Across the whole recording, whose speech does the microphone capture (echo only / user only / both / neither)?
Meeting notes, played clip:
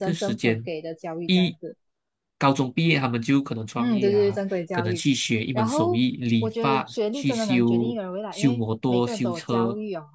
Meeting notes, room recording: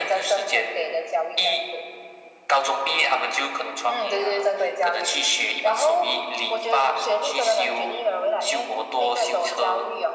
echo only